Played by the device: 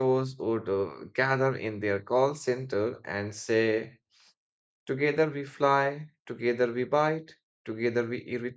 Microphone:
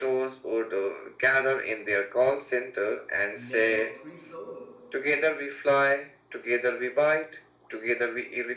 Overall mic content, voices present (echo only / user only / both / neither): both